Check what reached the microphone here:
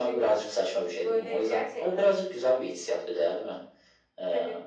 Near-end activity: none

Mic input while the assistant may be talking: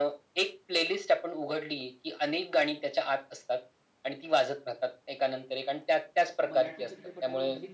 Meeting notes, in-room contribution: present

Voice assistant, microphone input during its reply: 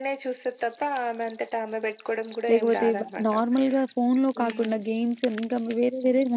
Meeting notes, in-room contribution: present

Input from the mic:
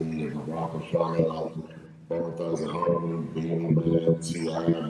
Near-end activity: none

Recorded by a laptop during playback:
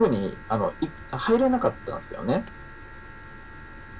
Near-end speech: none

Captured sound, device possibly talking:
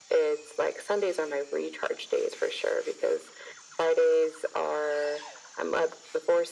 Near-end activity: none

